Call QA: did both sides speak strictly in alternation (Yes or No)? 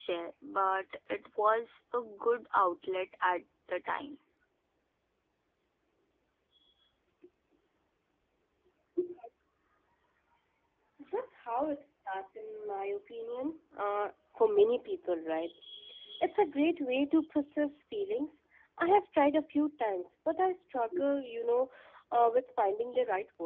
Yes